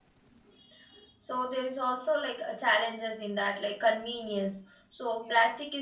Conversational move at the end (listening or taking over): listening